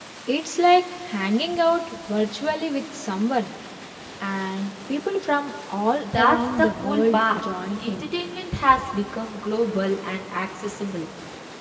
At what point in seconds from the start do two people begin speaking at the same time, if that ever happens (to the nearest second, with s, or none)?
6 s